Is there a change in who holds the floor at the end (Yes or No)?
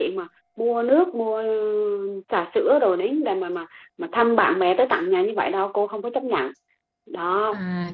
Yes